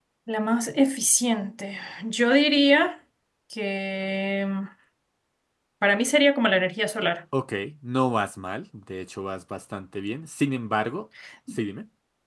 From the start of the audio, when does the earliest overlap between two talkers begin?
none

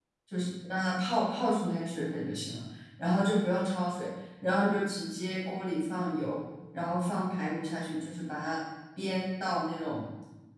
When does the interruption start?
none

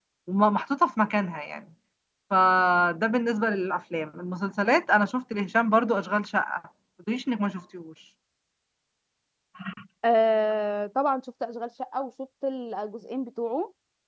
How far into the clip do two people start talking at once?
none

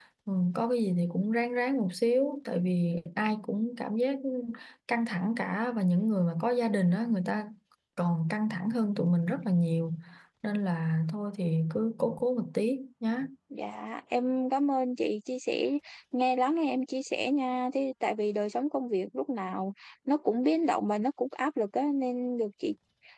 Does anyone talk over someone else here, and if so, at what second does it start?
none

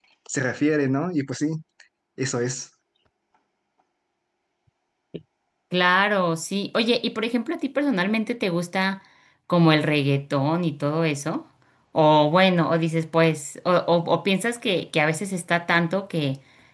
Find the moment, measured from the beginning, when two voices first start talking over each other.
none

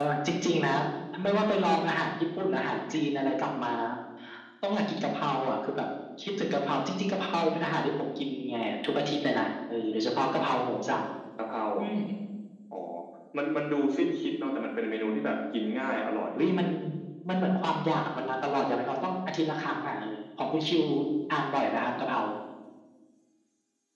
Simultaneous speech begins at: none

